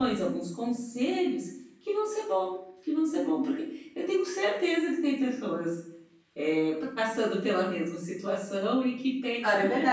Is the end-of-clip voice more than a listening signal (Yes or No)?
Yes